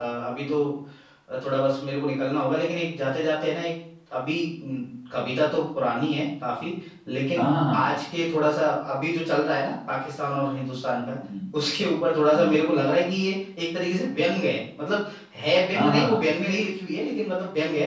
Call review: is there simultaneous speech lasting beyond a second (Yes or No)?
No